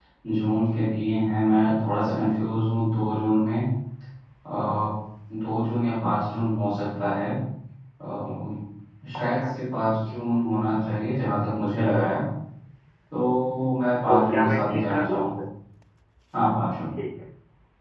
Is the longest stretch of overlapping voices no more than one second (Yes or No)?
No